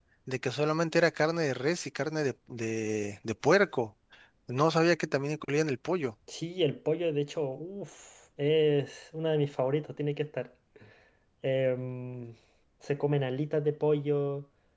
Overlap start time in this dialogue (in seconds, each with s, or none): none